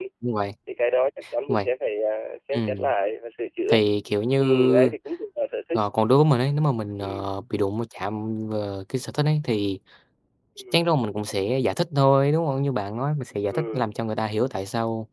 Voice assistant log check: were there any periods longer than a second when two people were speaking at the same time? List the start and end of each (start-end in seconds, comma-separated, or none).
none